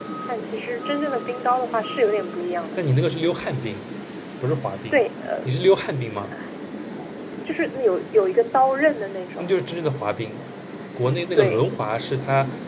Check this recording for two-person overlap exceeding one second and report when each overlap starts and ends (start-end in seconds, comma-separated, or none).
none